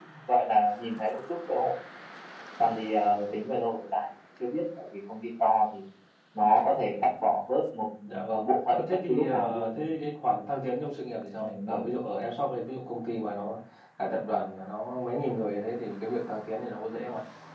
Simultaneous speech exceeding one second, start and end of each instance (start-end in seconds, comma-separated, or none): 8.3-9.8